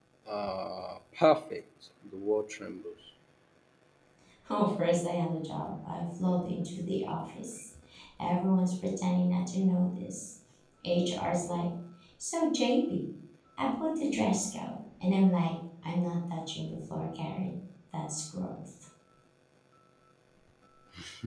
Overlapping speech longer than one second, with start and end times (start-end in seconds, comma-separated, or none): none